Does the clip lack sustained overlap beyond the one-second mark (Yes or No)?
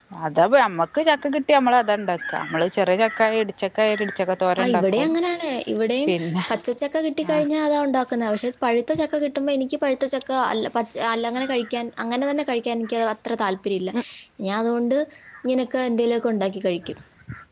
Yes